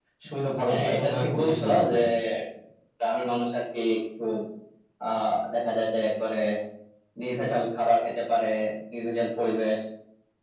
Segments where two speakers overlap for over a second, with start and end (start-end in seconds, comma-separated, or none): 0.7-1.9